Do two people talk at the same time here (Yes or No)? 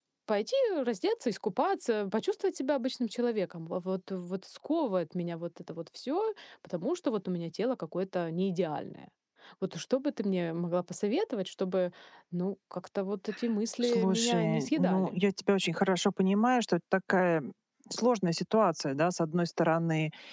Yes